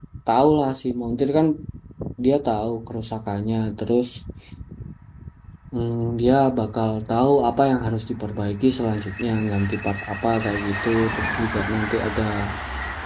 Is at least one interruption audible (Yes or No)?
No